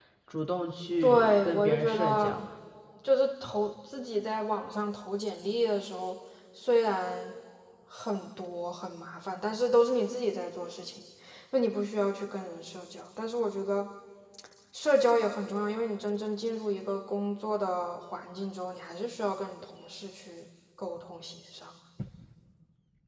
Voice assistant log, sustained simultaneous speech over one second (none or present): present